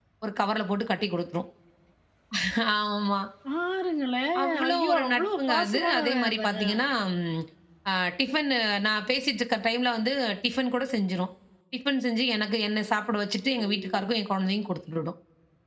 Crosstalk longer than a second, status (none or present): present